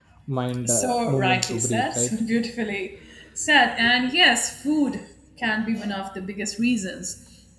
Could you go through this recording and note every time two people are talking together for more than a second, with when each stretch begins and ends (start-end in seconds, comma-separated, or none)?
0.6-2.1